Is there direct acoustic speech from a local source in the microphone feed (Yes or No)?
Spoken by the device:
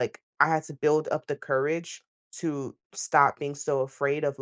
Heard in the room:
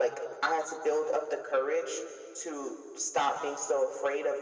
No